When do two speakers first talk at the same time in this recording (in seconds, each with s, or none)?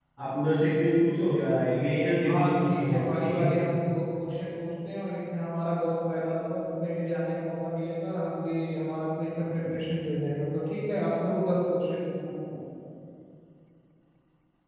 2.2 s